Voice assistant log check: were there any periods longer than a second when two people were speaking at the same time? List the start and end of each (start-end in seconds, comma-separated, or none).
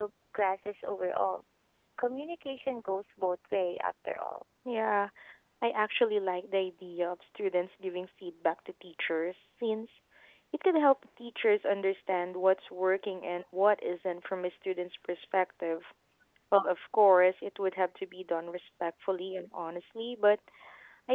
none